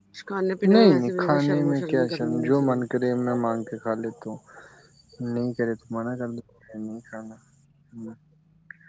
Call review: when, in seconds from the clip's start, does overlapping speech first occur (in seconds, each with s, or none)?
0.7 s